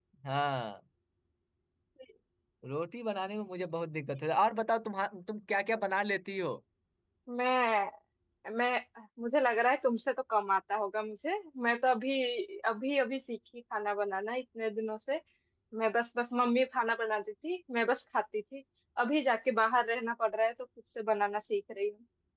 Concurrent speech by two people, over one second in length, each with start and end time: none

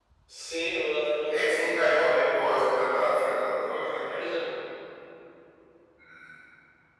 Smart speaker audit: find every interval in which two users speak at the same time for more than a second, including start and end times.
1.3-2.9

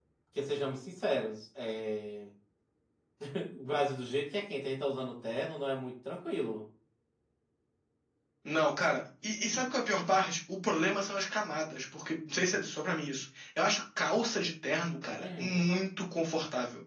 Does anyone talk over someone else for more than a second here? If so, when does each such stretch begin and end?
none

